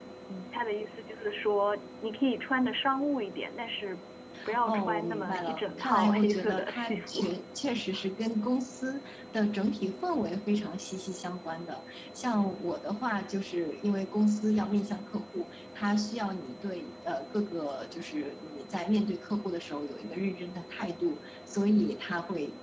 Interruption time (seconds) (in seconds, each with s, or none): 4.6 s